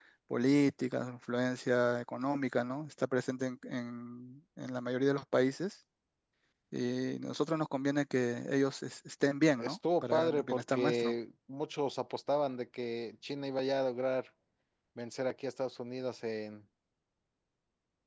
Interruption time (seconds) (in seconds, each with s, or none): 9.6 s